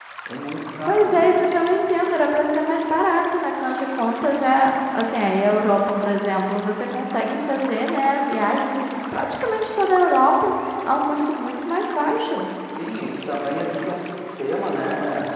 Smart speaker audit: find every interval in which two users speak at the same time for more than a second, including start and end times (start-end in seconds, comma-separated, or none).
none